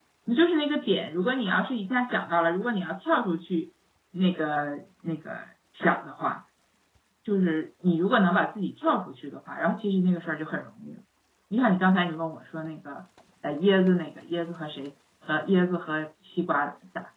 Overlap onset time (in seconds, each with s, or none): none